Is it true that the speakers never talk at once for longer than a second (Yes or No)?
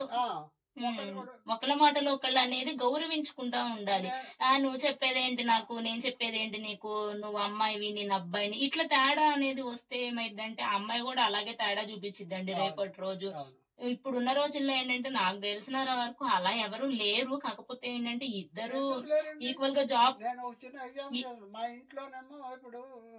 Yes